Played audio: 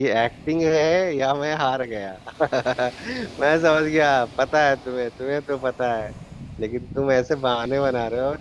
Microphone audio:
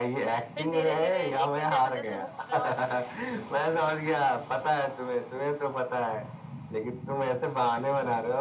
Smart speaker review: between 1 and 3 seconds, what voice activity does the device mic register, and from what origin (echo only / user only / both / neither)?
both